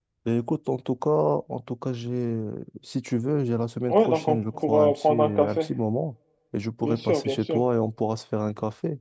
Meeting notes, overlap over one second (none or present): present